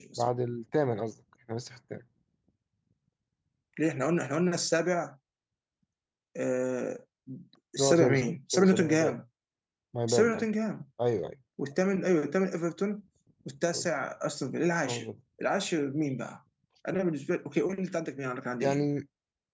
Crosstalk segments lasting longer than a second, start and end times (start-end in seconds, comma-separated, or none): 7.8-9.1